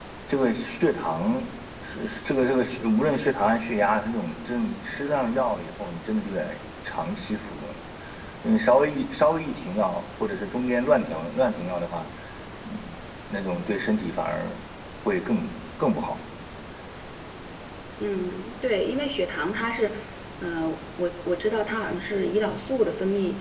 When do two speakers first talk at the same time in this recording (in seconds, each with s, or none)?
none